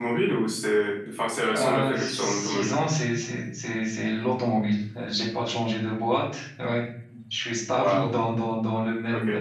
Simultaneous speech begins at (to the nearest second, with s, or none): 2 s